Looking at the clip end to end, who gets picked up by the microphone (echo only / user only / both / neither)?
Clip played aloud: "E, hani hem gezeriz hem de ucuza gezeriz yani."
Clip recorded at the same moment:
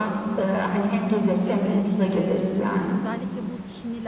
both